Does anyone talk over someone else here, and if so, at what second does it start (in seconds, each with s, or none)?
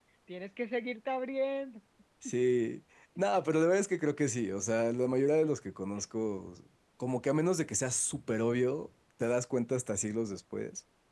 none